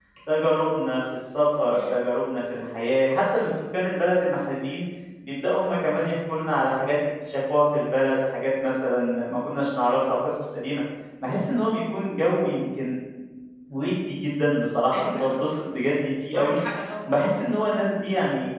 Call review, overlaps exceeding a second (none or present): none